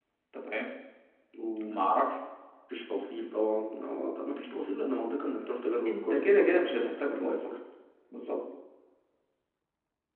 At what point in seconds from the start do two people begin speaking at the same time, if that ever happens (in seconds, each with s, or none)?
5.8 s